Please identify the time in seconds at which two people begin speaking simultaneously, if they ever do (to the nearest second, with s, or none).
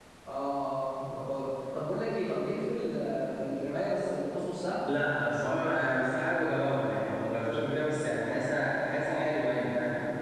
none